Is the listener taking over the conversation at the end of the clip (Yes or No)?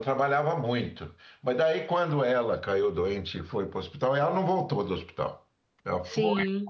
No